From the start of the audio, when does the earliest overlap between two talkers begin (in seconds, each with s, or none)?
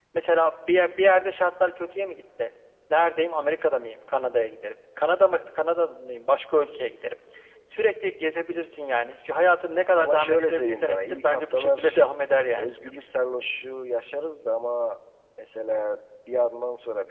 10.0 s